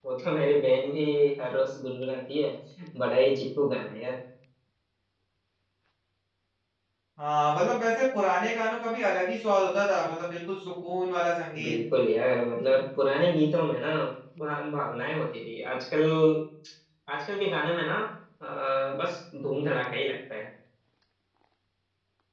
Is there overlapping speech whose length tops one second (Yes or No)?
No